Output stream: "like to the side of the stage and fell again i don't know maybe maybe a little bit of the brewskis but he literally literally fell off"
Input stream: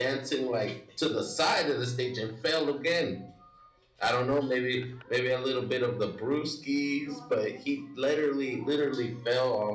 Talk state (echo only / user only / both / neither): echo only